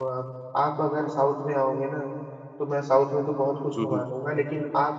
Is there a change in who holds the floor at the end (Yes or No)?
No